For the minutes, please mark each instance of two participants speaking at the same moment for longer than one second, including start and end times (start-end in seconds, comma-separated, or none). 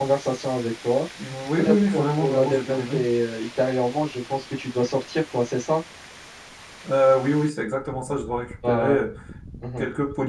1.6-3.0